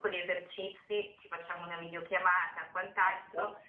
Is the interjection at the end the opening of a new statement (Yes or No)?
No